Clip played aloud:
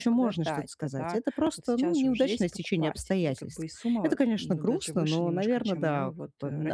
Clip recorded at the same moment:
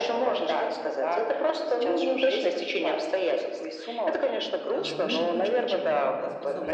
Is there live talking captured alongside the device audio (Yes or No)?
Yes